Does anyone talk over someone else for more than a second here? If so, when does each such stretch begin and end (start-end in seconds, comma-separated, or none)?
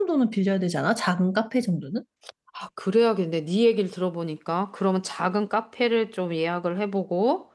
none